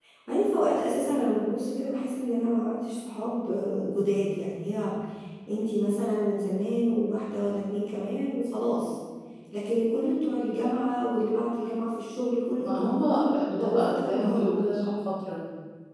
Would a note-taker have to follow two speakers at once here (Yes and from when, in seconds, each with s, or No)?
Yes, from 12.6 s